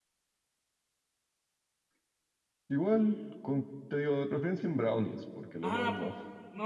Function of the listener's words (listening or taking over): taking over